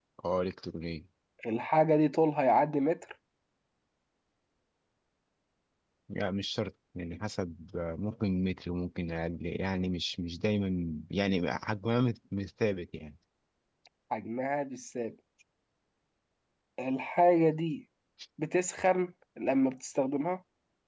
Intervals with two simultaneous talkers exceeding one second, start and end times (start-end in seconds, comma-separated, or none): none